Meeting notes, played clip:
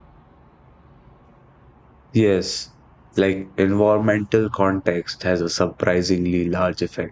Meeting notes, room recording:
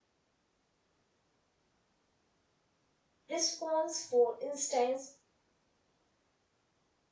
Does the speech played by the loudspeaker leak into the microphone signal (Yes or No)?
No